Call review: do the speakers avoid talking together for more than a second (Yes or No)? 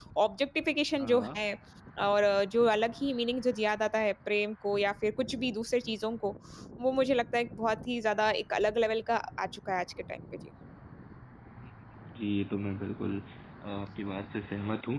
Yes